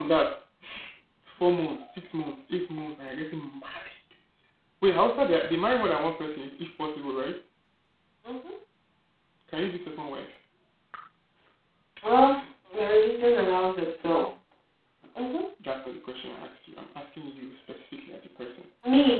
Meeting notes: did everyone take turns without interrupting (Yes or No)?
Yes